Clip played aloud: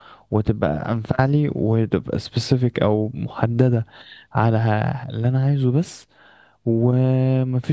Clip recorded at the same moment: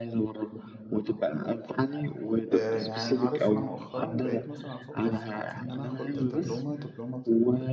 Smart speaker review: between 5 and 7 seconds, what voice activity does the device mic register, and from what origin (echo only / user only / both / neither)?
both